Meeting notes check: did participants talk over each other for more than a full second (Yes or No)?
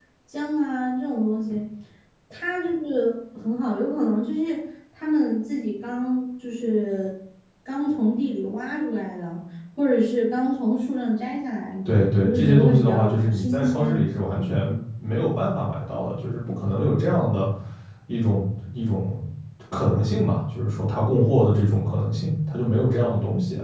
Yes